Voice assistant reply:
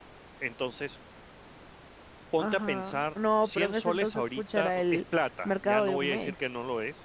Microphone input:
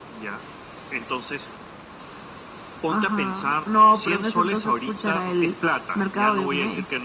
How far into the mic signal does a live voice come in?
none

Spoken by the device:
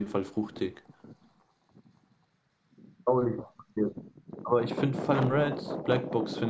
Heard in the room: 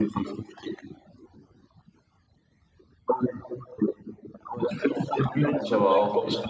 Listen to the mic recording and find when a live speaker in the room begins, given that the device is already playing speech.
6 s

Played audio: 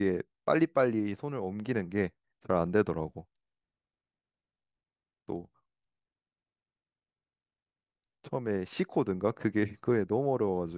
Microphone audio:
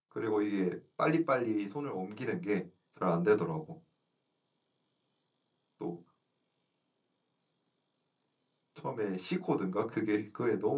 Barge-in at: none

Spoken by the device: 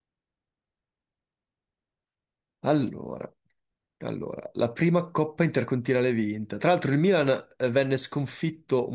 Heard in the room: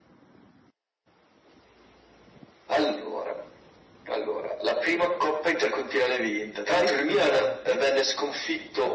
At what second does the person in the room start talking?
7 s

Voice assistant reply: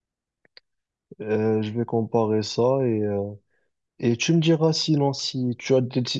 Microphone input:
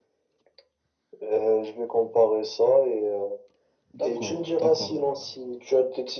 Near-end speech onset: 4 s

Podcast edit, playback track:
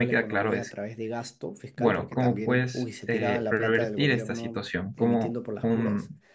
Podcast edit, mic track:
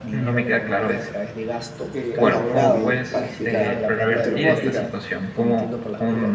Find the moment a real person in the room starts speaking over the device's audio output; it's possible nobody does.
2 s

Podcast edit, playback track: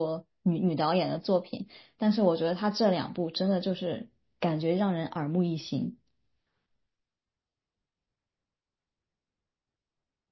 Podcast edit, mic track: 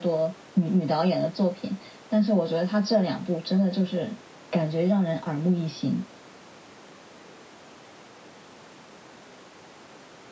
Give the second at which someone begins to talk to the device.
none

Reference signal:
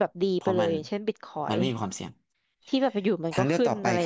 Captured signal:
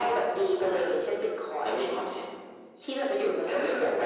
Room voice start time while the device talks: none

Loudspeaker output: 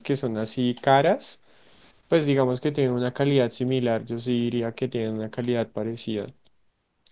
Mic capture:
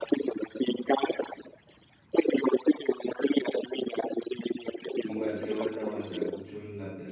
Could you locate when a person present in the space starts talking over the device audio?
5 s

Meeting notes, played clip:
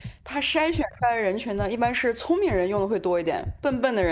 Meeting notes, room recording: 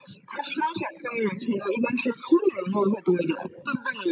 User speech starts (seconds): none

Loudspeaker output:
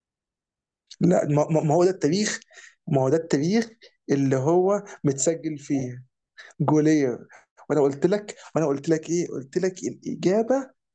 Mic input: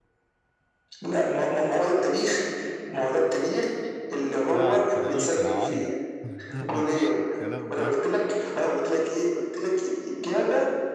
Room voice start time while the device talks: 5 s

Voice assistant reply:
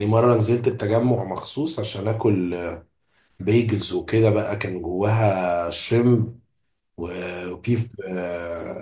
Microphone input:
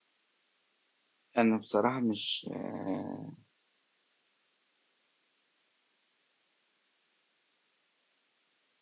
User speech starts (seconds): 1 s

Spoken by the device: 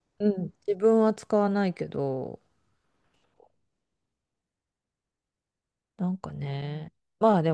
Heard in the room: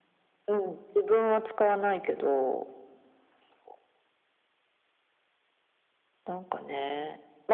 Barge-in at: none

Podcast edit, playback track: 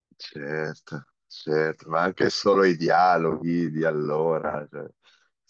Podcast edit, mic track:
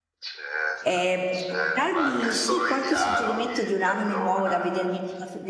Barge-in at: 1 s

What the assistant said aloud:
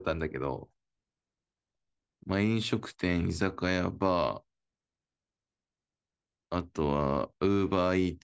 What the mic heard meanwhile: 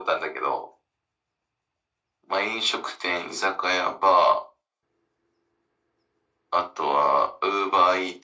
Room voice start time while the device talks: none

